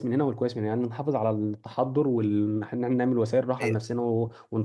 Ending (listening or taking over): listening